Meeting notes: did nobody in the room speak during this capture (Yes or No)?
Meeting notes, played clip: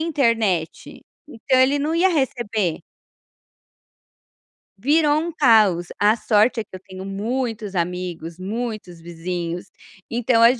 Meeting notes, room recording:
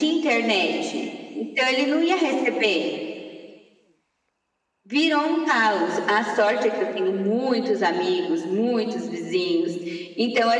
Yes